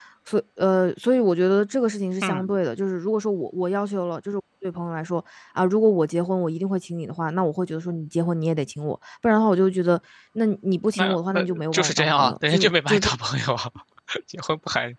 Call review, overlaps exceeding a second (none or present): present